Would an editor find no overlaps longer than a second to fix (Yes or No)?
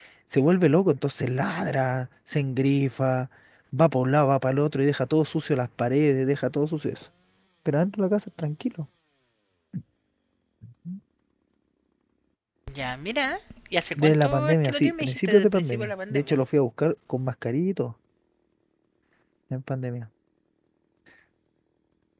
No